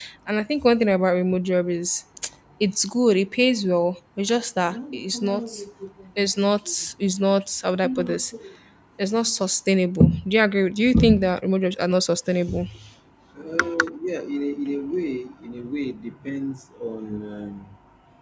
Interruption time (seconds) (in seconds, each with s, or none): none